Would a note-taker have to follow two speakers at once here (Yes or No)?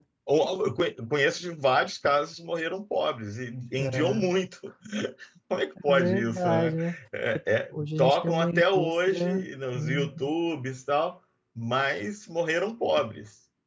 Yes